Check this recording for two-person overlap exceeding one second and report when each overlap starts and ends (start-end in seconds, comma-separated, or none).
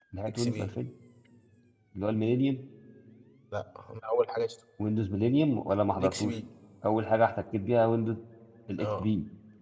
none